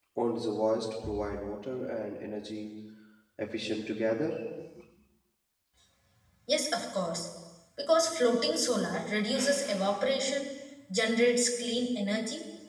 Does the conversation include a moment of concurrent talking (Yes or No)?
No